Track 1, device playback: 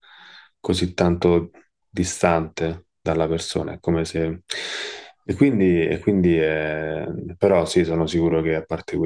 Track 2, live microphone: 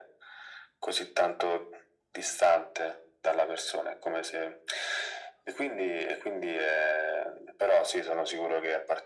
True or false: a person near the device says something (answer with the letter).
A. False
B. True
A